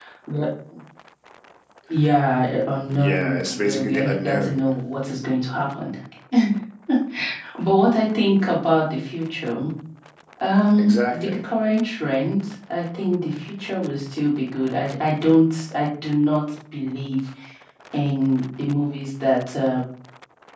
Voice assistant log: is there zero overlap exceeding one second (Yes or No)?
No